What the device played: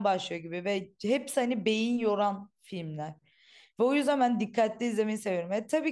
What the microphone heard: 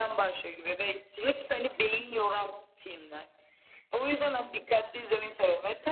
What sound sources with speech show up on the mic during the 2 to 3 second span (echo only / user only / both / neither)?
echo only